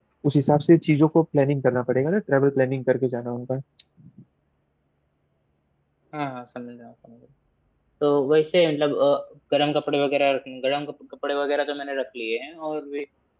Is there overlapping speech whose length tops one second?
No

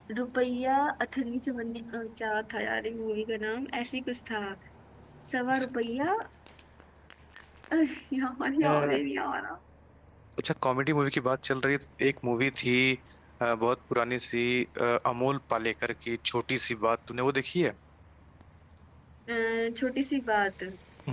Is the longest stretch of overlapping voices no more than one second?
Yes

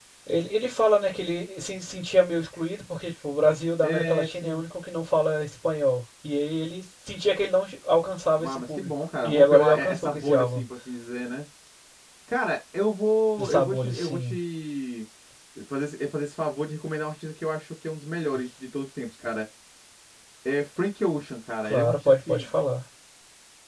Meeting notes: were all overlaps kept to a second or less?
No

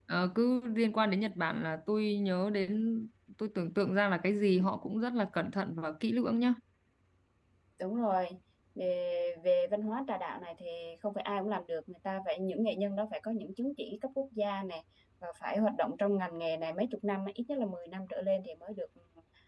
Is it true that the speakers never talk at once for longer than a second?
Yes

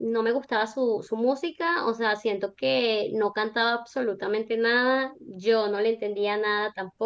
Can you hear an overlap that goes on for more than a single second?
No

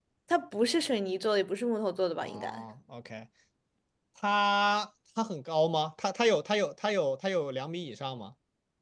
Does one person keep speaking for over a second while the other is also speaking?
No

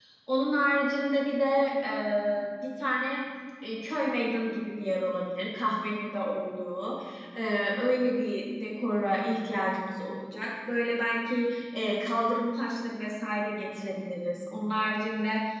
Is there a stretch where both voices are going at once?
No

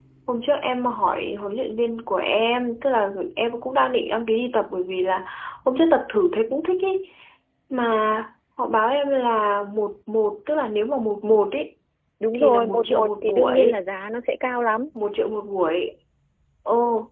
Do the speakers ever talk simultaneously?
Yes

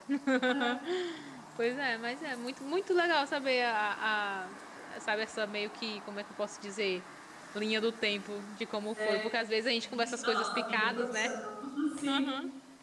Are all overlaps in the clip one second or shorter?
No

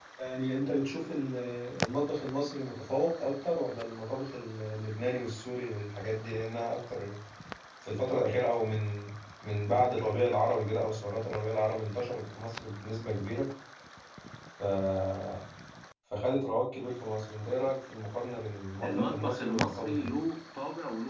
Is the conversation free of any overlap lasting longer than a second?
No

